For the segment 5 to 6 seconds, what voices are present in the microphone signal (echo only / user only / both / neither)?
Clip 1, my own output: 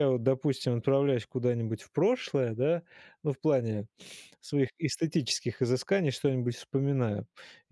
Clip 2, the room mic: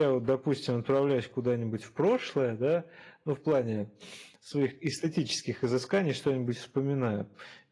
echo only